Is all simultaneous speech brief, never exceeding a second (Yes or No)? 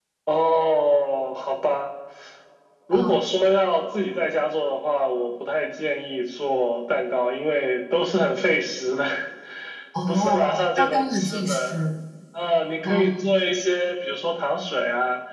No